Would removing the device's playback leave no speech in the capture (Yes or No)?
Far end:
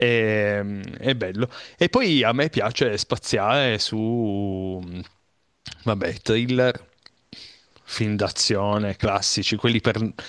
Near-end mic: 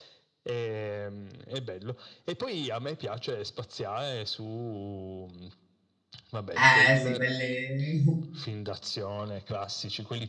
No